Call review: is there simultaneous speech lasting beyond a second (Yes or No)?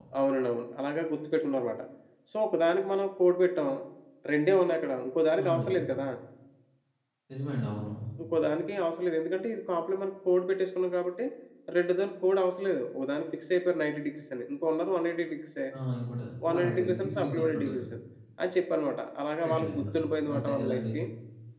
Yes